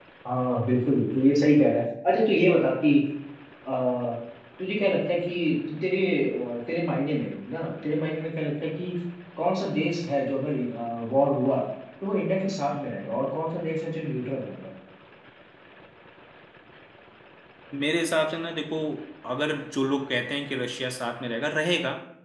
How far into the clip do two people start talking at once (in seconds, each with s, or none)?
none